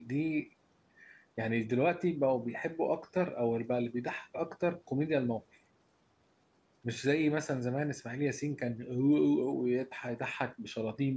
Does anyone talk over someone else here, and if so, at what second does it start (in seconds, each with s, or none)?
none